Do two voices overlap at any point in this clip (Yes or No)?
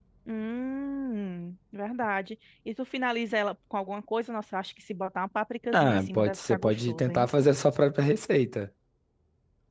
Yes